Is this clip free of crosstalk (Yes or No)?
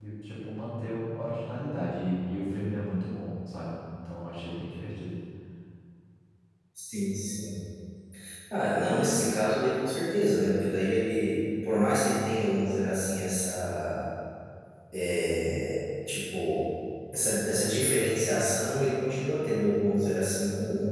Yes